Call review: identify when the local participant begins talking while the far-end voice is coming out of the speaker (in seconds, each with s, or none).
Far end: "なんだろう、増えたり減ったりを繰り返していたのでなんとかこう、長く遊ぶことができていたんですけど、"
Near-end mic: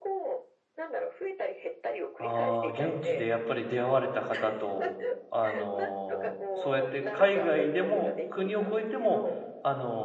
2.2 s